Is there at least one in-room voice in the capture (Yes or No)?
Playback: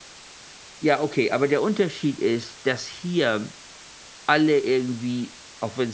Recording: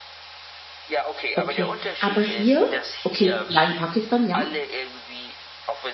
Yes